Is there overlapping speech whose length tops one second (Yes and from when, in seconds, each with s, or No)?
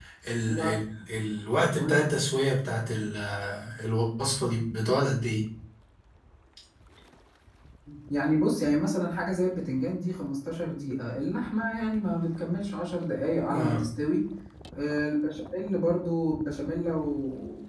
No